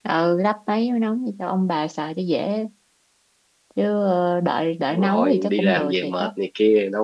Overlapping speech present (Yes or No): Yes